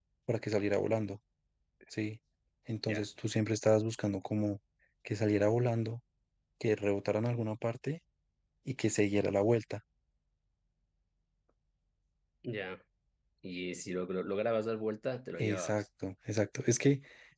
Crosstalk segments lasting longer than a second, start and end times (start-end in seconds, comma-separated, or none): none